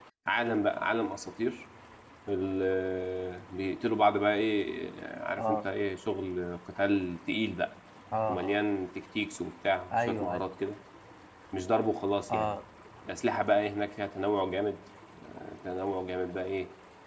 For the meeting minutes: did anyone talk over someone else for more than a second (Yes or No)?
No